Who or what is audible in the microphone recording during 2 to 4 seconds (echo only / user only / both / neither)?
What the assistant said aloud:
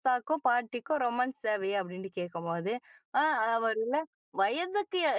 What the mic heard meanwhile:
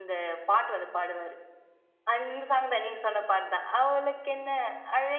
user only